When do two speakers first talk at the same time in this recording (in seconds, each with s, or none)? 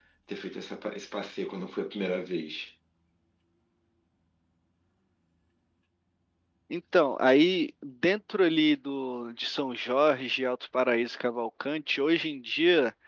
none